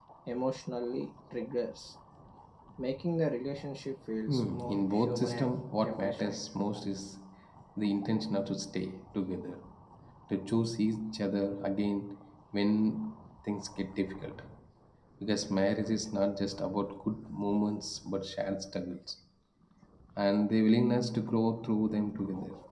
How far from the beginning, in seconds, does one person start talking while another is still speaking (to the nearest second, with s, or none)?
4 s